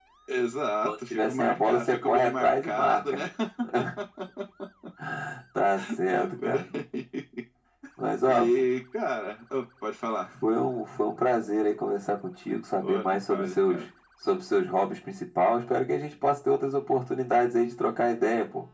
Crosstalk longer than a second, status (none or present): present